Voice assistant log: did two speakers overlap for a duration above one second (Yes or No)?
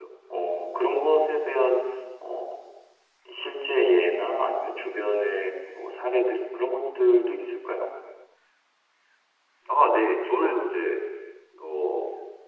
No